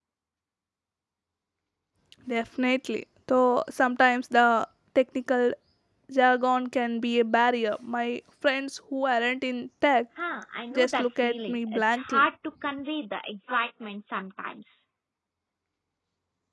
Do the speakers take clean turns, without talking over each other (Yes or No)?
No